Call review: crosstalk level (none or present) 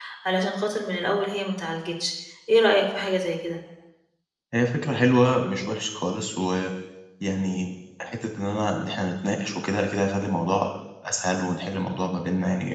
none